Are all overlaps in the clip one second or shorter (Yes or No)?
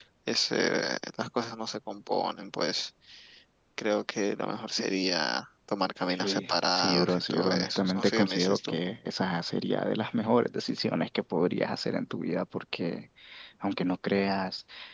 No